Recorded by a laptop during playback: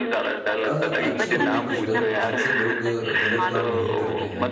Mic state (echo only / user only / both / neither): both